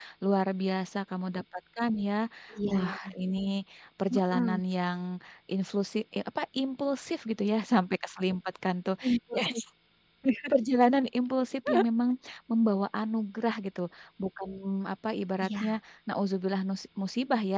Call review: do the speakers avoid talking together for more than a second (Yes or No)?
Yes